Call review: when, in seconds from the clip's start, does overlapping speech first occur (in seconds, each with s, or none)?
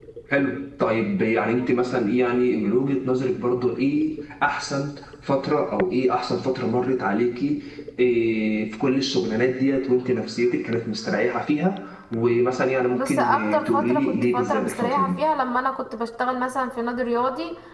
12.9 s